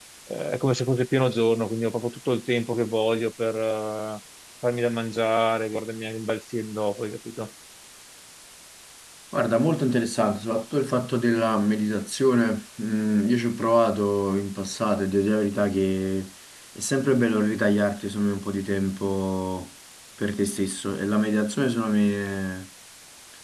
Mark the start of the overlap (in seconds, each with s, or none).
none